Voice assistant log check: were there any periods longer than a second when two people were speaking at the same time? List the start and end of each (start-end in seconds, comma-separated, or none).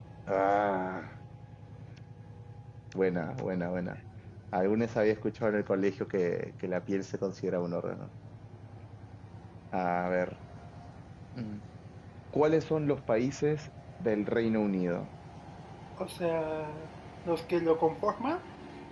none